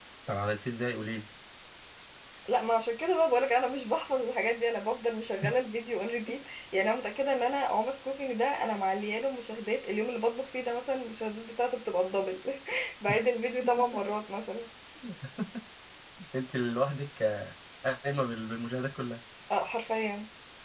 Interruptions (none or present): none